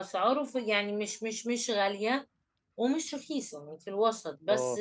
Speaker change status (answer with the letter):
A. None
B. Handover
B